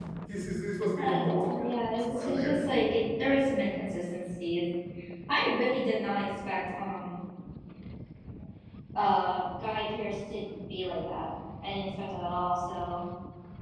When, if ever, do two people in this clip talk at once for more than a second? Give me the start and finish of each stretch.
1.0-2.6

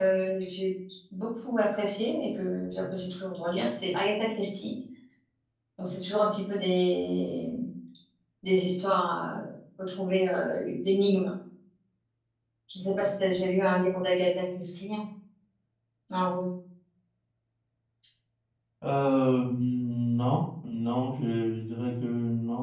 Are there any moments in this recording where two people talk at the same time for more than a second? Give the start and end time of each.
none

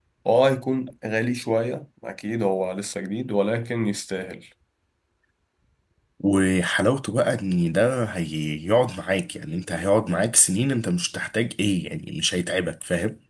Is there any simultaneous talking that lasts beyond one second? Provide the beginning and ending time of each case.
none

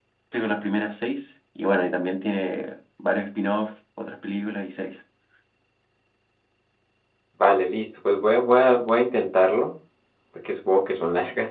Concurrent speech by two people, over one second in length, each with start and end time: none

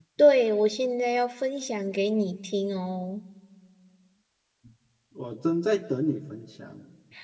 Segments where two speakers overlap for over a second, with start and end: none

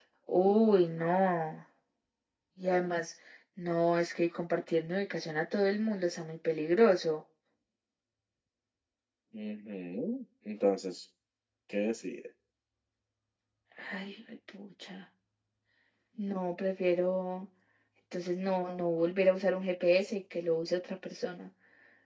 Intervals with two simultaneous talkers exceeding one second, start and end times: none

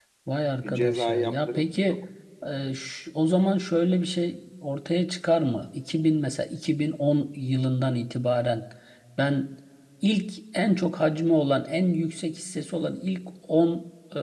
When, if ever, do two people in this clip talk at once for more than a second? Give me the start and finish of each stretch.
0.6-2.0

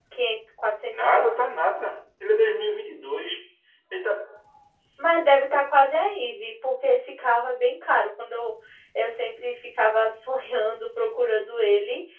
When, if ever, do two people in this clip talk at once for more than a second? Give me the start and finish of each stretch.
none

